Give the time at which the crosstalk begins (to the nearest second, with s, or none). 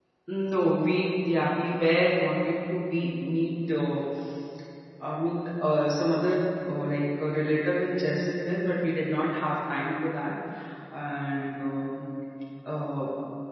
none